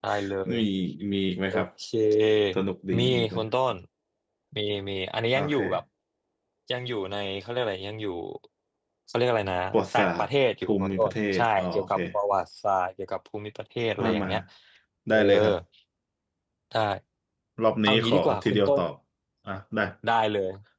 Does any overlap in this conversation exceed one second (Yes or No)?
Yes